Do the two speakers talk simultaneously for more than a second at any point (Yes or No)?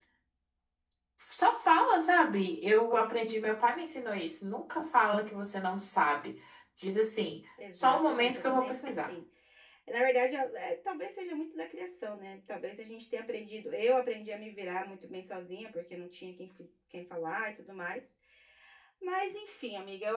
Yes